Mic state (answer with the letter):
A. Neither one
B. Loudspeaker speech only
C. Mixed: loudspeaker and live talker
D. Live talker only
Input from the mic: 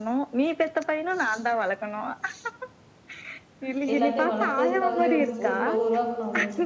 C